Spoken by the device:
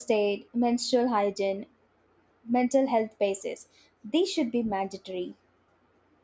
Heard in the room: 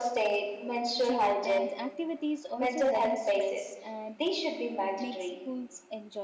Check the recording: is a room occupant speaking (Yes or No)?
Yes